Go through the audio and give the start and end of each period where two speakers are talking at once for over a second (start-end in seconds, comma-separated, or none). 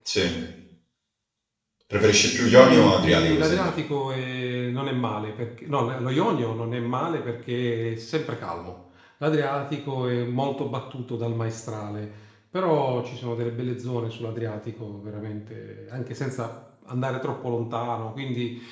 2.1-3.7